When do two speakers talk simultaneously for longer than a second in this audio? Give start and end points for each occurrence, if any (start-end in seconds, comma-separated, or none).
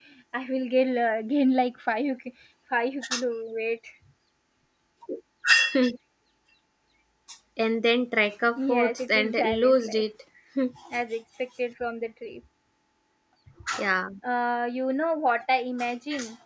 8.6-10.1